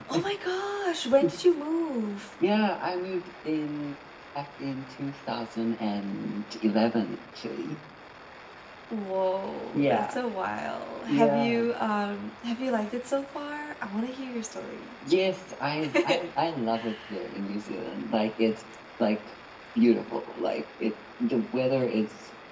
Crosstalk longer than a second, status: none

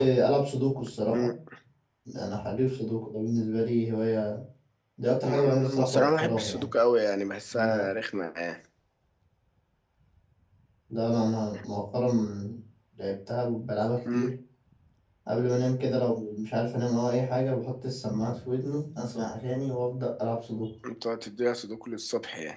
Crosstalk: present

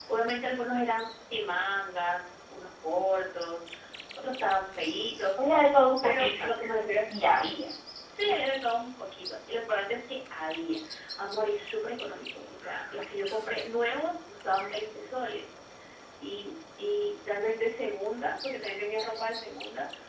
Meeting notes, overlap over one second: none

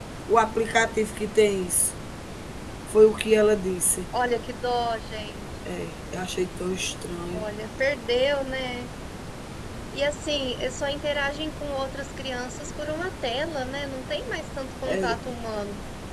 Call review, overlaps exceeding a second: none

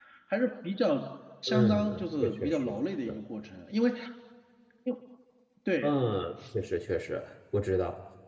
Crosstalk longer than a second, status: present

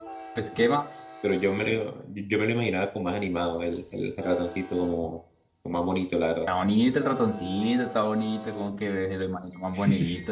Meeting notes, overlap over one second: none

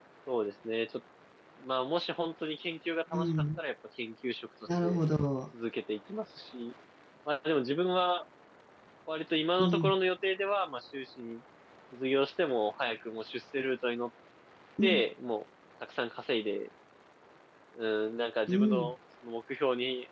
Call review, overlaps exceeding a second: none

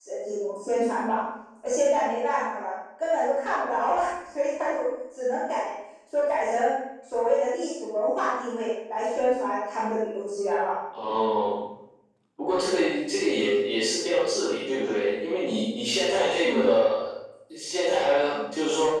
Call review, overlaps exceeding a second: none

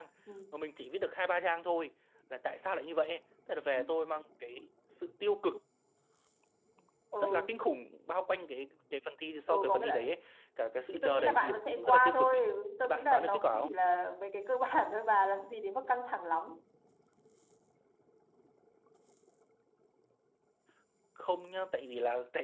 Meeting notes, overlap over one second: present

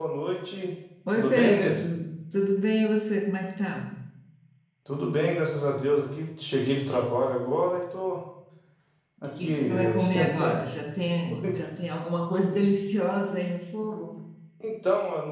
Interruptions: present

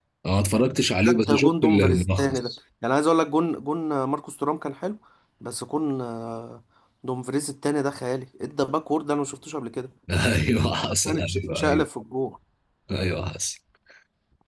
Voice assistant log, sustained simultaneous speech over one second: present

